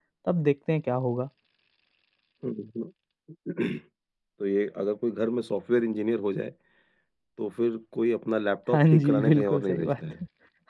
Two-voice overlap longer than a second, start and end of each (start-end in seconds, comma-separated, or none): 8.7-10.1